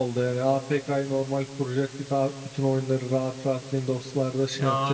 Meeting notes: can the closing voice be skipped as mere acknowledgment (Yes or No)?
No